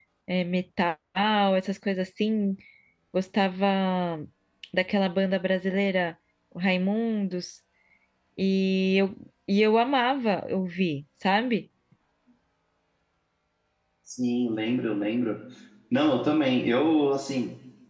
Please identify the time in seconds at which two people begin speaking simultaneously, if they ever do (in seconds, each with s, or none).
none